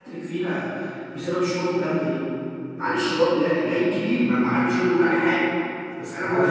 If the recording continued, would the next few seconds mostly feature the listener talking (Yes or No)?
No